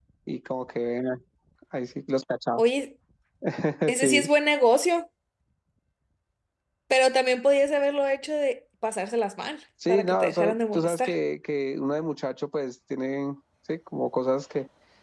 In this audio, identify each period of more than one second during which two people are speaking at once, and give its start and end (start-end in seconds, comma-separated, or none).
9.9-11.2